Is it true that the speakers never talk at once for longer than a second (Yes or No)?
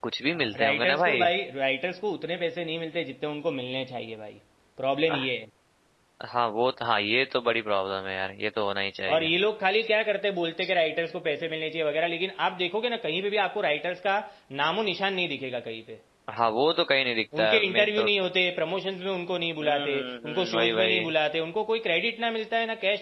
No